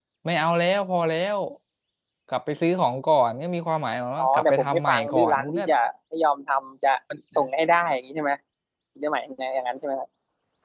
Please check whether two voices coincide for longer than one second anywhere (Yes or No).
Yes